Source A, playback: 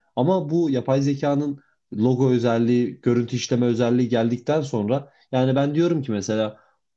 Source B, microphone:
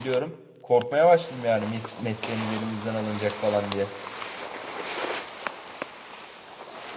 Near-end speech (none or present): present